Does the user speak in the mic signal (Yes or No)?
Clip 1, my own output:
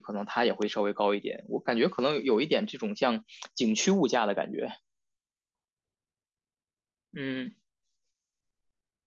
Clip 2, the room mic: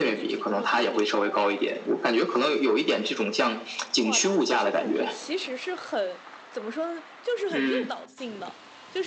Yes